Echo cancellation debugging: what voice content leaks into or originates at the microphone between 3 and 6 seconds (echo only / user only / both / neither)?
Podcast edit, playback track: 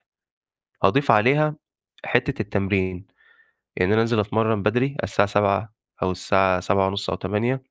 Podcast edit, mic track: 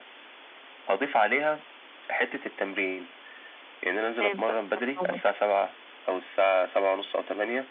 both